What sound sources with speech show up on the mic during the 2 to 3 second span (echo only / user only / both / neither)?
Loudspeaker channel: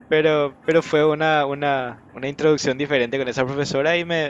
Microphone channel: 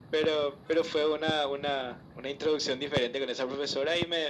echo only